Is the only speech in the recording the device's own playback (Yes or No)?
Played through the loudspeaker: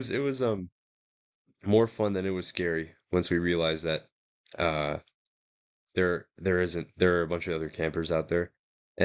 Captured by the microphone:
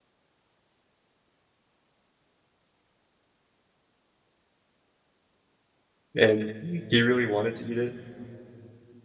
No